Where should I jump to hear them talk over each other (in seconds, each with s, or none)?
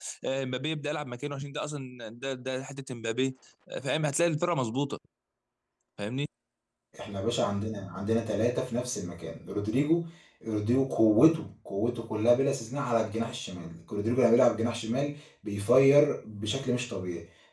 none